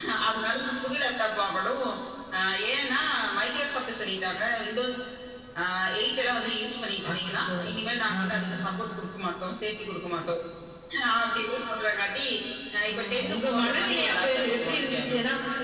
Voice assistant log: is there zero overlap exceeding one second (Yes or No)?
No